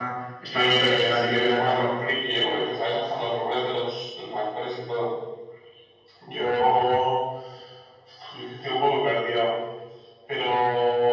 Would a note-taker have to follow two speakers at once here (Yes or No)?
Yes